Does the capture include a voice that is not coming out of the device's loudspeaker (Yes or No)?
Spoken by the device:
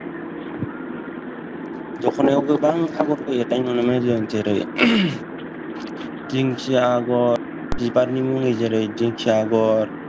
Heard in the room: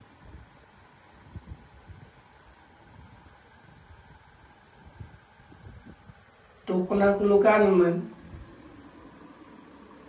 Yes